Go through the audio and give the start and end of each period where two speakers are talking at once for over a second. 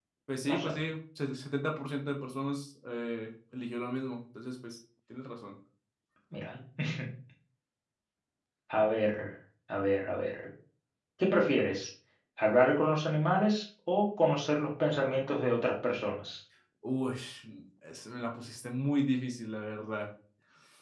none

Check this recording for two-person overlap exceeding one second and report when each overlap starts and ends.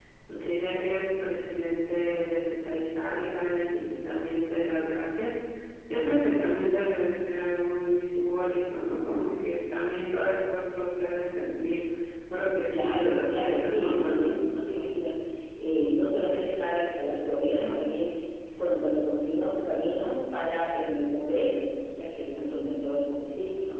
12.8-14.3

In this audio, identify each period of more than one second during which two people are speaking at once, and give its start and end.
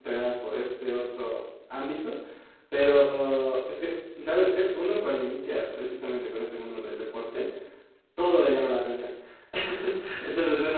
none

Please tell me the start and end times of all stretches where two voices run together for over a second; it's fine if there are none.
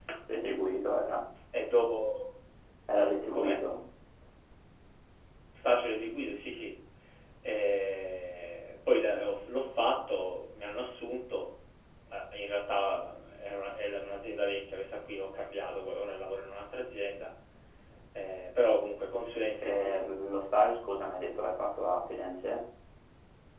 none

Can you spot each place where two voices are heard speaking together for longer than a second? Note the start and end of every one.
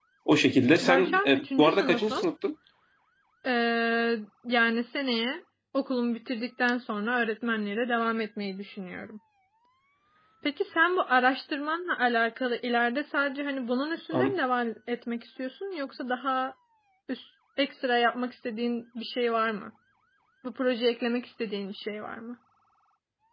0.8-2.2

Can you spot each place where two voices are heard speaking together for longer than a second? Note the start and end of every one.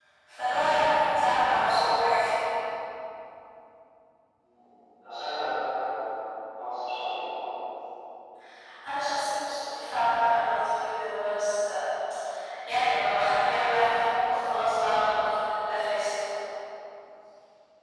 none

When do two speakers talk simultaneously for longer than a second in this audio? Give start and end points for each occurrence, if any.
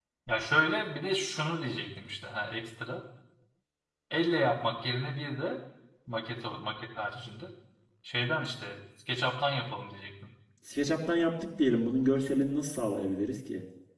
none

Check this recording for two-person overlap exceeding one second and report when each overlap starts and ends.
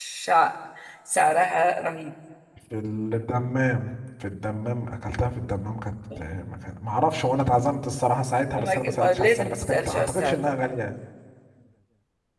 8.6-10.4

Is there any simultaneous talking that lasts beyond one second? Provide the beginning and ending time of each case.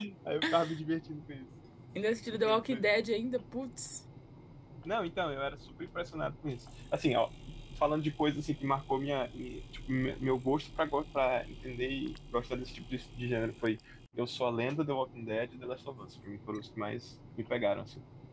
none

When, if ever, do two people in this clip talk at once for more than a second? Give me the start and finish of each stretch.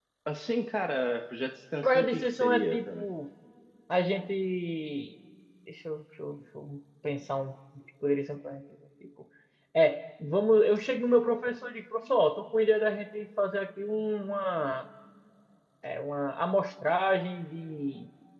1.8-3.0

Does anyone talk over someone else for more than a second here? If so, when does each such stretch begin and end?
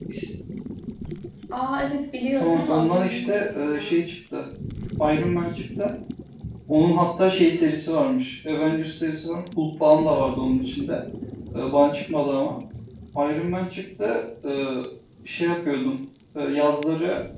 2.4-3.9

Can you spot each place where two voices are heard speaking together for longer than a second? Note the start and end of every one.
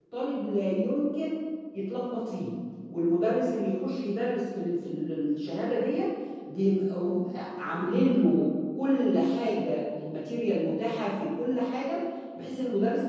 none

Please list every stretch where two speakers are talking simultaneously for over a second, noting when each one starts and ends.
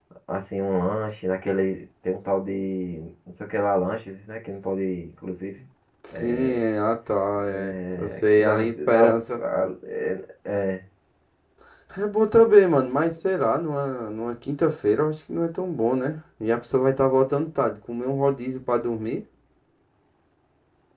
7.5-9.4

